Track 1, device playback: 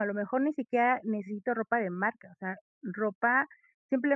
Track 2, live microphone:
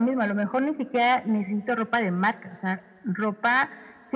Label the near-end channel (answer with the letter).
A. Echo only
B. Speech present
A